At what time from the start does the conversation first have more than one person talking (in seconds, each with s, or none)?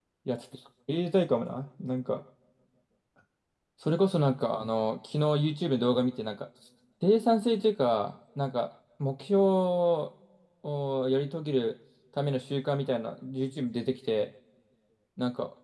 none